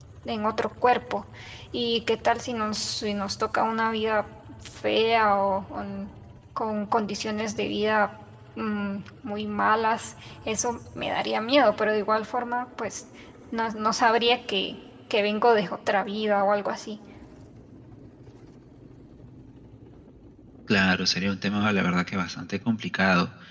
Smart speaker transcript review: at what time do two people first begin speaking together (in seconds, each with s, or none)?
none